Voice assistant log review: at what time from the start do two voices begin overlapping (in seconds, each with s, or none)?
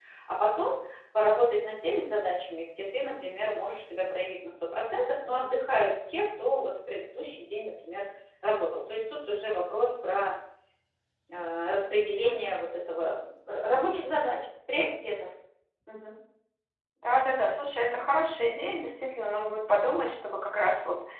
none